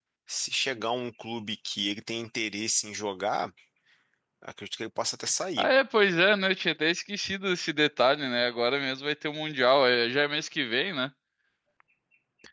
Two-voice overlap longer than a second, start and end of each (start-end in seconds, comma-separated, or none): none